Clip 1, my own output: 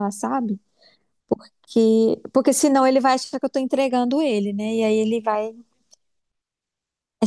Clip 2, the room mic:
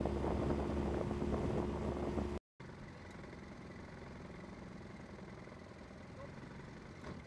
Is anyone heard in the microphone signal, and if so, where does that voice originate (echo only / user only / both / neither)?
neither